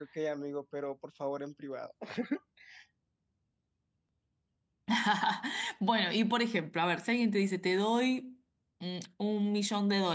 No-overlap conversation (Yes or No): Yes